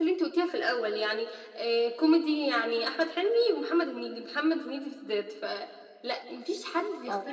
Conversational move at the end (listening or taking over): listening